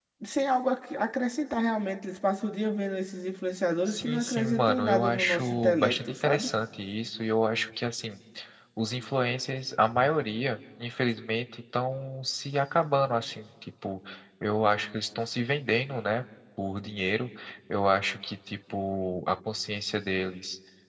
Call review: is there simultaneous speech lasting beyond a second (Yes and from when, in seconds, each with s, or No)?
Yes, from 3.9 s